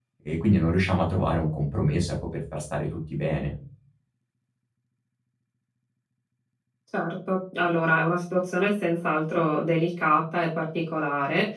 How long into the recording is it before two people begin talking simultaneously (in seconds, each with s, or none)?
none